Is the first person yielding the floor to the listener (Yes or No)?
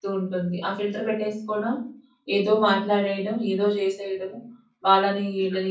No